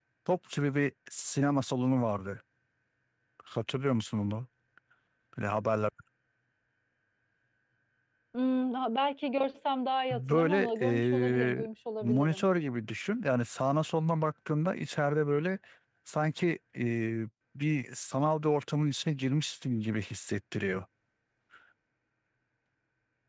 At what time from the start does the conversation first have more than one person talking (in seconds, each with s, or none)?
10.1 s